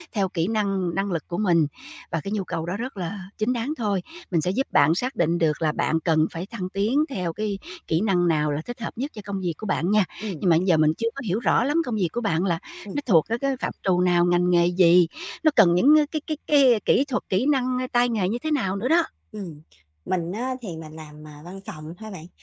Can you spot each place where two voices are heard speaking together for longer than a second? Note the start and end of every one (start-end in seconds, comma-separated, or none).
none